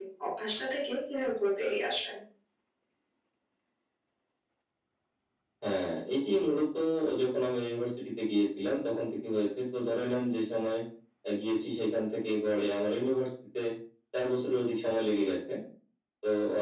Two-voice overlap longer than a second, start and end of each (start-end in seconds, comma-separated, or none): none